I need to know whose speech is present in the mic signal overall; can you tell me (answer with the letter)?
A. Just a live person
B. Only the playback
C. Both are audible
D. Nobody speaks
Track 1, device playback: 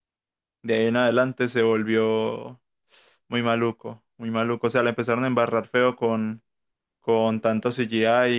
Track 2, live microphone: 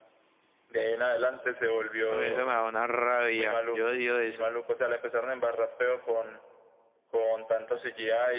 C